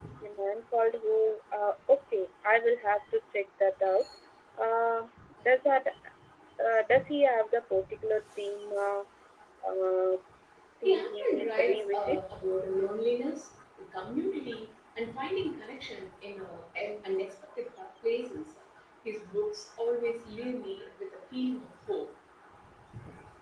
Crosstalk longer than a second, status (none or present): present